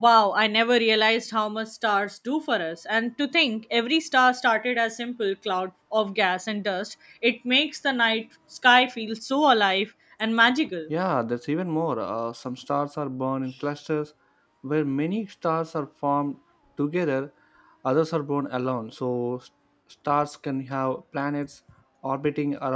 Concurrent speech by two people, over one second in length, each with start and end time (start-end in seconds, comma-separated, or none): none